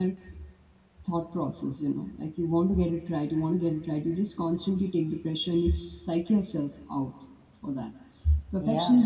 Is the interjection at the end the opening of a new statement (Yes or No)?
No